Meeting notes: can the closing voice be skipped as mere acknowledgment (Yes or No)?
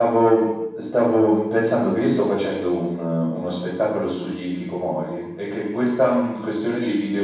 Yes